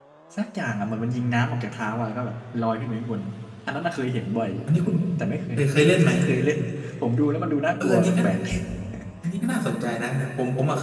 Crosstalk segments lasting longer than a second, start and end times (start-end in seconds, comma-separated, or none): none